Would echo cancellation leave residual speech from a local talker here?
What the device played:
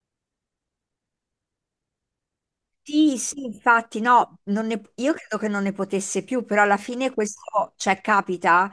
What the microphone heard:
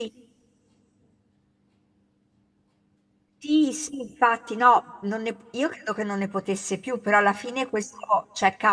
No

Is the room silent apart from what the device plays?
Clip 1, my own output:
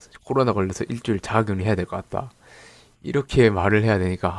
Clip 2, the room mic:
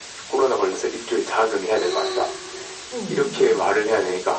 No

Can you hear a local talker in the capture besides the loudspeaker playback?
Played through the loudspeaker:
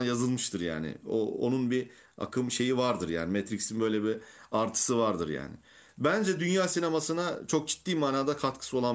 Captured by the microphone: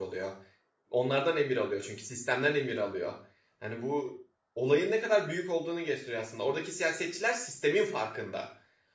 Yes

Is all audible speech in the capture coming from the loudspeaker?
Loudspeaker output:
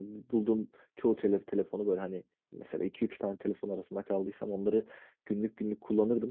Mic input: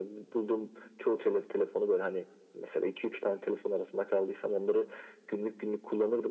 Yes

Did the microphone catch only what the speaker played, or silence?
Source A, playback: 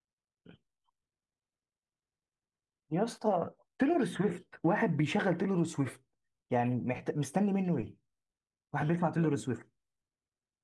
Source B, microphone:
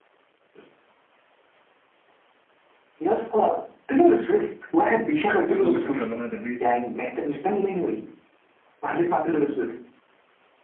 No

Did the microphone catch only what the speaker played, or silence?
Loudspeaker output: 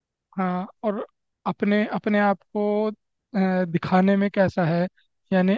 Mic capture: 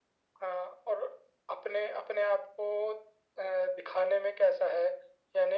Yes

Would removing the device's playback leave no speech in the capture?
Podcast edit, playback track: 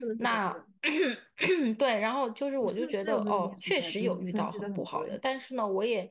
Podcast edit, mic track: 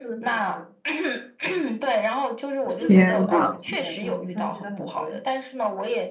No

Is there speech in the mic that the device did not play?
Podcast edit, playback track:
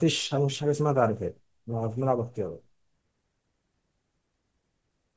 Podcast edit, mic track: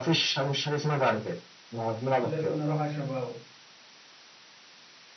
Yes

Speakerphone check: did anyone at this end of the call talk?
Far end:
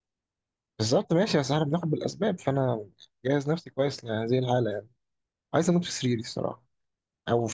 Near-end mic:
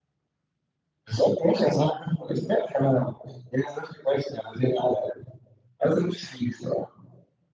No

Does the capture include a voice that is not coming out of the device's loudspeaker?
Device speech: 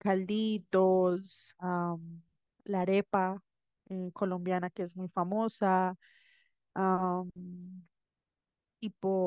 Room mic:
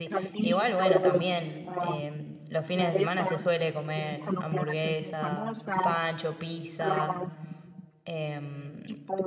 Yes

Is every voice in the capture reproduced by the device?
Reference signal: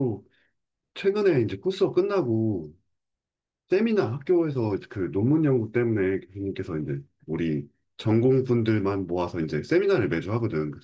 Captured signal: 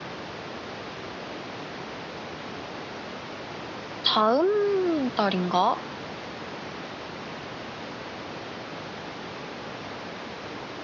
No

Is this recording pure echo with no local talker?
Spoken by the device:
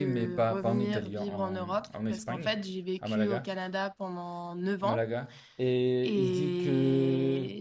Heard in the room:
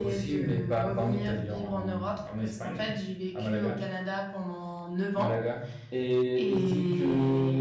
Yes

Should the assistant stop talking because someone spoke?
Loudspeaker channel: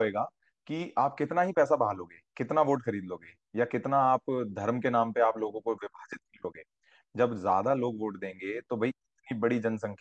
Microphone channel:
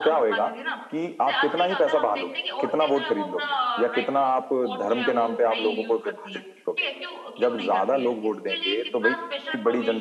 Yes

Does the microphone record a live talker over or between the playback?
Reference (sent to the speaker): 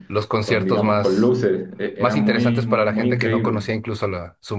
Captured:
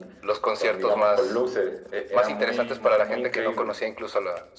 No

